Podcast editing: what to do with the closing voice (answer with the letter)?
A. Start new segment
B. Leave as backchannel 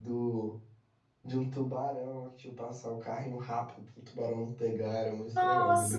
A